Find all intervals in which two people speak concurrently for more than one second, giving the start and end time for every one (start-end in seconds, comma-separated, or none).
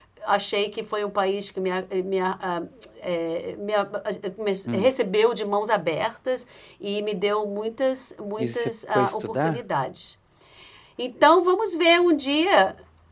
8.4-9.6